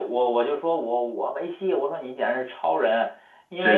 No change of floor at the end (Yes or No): Yes